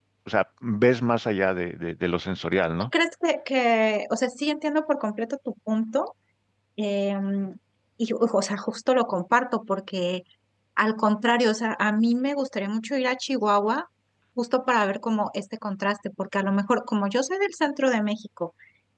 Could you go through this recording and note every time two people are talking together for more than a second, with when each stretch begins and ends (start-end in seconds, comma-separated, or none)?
none